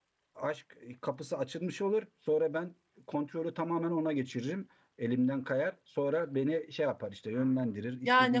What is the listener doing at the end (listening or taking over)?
taking over